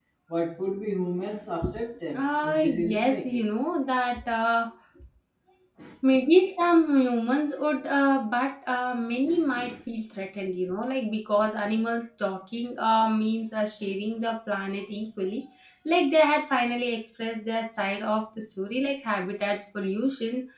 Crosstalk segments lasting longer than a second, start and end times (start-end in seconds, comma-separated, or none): 2.1-3.5